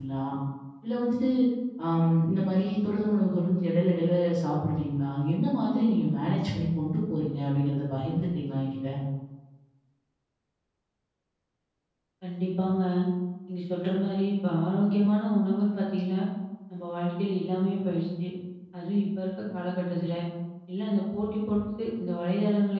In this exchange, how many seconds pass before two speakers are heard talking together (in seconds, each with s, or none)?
none